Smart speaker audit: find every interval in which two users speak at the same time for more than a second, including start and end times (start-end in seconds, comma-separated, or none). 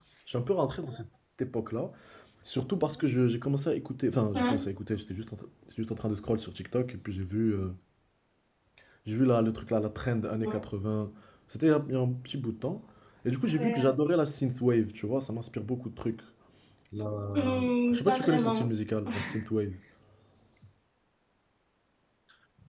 17.3-18.6